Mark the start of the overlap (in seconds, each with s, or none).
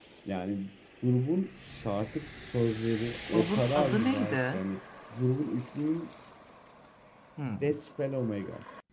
3.3 s